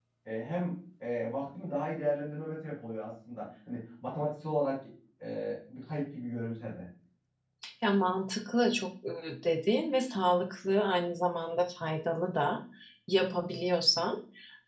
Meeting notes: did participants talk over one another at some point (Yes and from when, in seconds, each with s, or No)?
No